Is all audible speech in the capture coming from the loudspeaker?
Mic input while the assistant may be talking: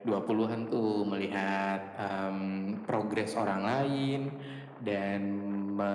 Yes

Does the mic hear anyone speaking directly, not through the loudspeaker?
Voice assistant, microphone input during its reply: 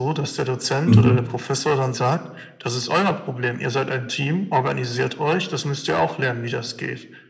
Yes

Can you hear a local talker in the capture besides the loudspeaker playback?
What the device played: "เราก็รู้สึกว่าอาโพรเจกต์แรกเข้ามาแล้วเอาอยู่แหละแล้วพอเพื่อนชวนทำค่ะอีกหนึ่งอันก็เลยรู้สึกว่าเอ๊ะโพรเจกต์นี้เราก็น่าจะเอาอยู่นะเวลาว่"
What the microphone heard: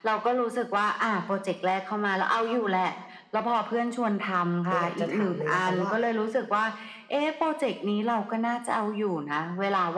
Yes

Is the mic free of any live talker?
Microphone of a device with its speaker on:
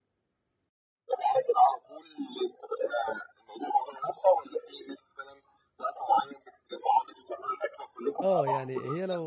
No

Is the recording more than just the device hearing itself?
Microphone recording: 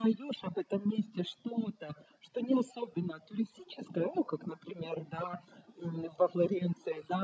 No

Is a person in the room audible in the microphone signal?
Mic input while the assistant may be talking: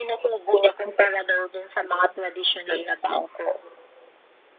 No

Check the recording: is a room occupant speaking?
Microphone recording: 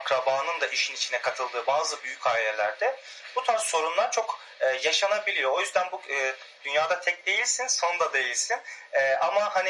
No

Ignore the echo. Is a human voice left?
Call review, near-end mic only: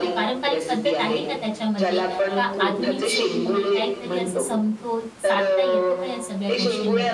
Yes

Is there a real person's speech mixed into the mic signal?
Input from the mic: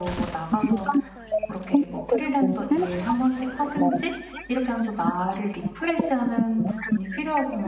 Yes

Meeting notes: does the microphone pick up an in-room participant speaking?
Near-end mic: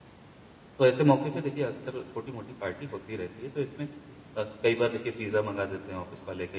Yes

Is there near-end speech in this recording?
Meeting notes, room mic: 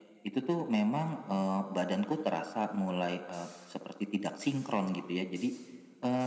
No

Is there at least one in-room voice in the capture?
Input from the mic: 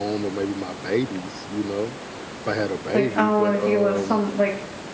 Yes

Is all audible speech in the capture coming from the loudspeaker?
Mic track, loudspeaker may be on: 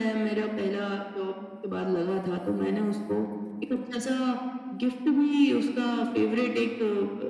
Yes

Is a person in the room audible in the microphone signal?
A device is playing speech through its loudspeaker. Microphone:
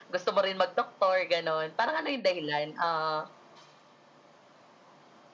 No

